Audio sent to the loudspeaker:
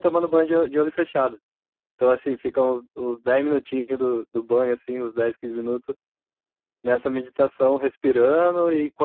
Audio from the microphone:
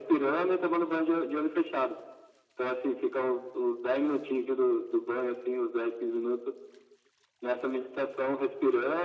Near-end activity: none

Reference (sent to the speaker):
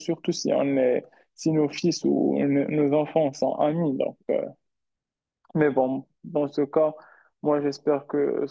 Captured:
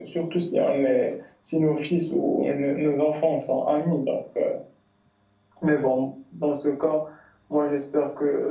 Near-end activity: none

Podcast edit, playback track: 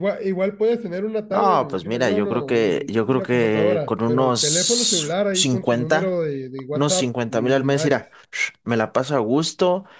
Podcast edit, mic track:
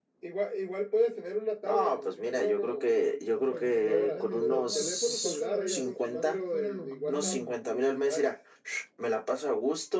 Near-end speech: present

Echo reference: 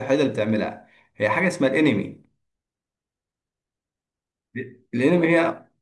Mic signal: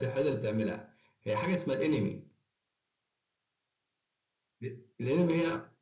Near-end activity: none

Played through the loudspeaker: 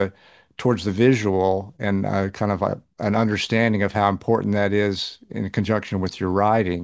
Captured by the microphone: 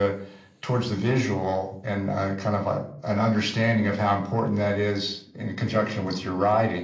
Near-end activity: none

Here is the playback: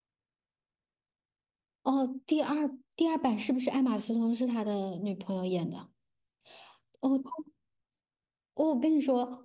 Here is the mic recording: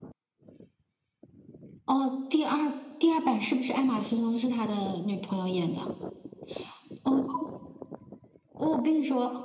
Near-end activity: none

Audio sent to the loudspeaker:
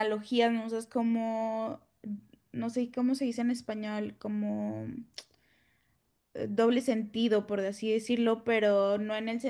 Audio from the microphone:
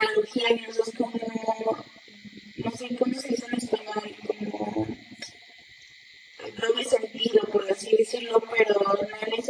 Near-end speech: none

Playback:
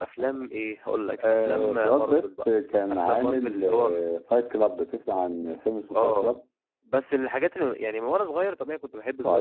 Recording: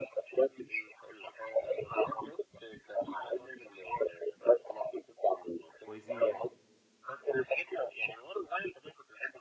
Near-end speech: present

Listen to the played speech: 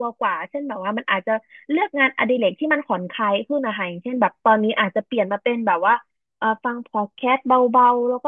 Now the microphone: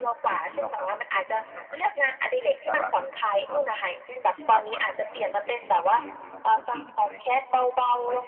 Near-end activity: present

